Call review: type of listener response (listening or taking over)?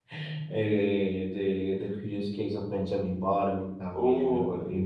listening